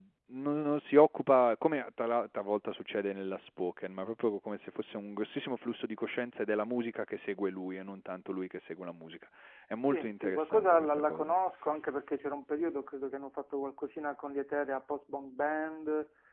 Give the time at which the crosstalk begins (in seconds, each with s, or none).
9.9 s